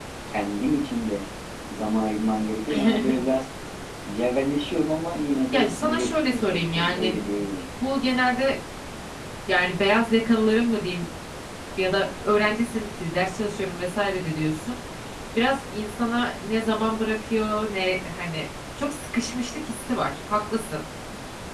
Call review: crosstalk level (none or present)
present